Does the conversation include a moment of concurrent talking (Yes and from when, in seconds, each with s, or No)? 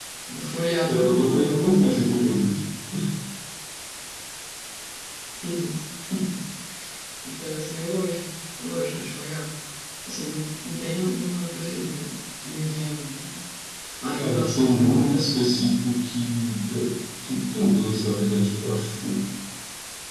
Yes, from 0.9 s